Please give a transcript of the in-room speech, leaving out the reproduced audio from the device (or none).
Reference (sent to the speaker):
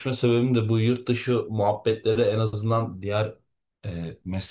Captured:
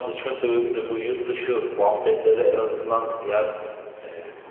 none